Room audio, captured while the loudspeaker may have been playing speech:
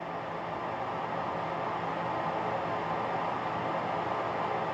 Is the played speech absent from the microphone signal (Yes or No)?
Yes